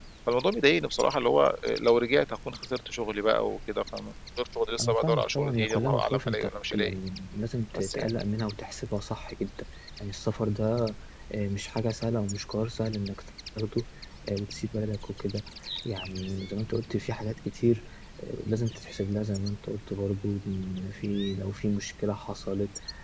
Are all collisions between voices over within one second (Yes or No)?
No